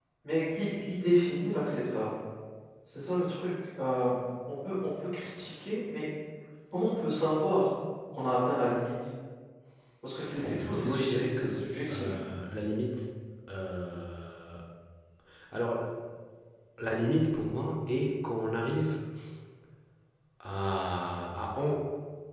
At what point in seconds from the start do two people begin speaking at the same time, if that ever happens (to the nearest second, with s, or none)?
11 s